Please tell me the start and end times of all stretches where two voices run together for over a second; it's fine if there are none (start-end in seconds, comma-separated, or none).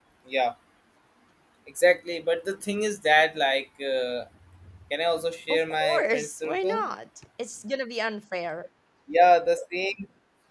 5.5-6.9